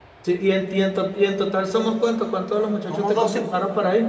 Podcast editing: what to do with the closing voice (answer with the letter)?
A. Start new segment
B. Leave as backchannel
A